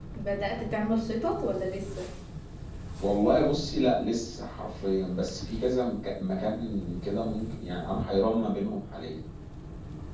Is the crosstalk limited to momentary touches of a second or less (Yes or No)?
Yes